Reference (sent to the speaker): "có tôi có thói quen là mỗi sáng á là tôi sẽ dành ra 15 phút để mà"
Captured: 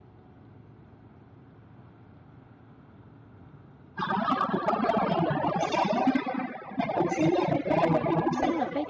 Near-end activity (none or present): present